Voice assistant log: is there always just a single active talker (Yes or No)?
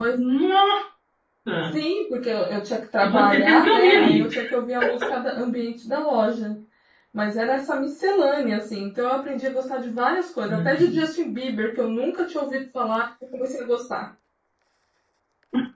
No